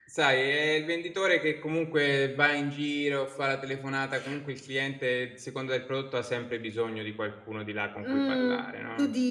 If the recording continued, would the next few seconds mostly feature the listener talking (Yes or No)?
Yes